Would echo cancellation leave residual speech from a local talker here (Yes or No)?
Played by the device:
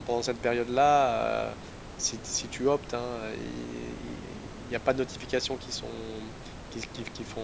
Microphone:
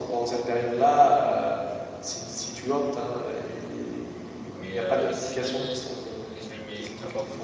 Yes